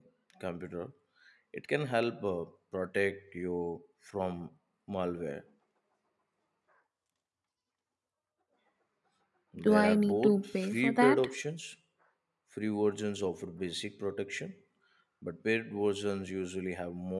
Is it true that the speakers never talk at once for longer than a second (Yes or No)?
No